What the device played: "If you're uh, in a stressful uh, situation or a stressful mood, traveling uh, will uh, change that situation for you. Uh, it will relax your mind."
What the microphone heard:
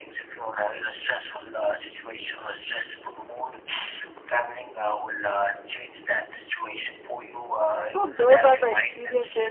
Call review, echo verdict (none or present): present